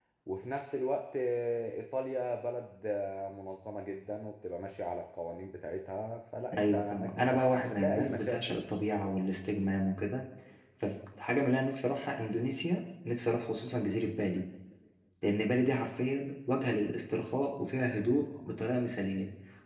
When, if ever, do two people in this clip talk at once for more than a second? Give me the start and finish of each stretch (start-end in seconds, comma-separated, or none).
6.6-8.6